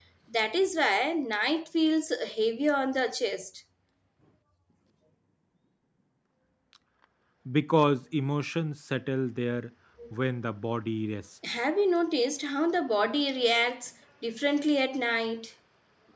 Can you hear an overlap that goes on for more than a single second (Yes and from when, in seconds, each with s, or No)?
No